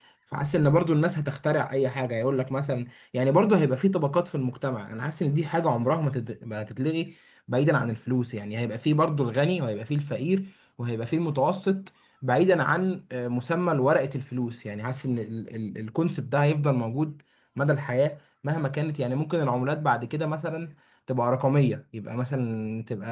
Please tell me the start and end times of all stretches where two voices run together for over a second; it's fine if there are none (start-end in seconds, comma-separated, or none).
none